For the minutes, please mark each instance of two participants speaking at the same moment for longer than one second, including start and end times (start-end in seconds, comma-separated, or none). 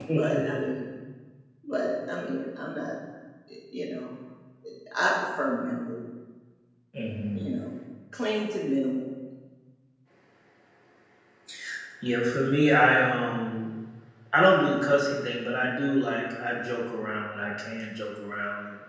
none